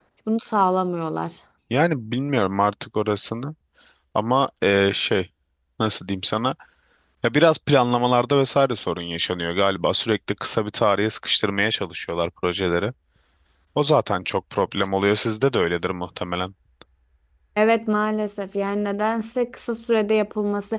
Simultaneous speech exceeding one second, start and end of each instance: none

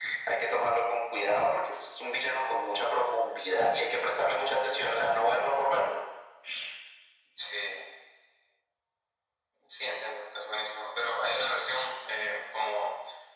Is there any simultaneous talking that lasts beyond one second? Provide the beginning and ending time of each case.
none

